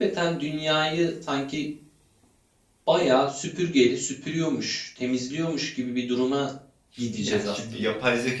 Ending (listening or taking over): taking over